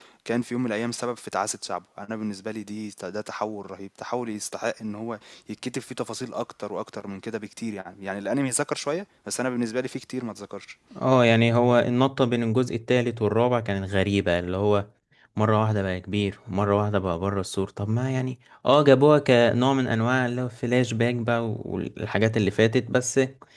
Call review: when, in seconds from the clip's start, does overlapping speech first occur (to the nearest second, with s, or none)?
none